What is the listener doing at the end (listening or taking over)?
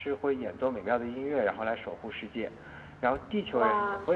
listening